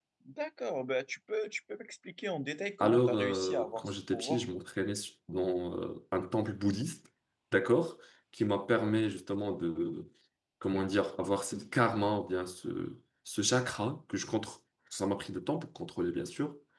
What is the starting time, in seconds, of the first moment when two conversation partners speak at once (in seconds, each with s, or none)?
2.8 s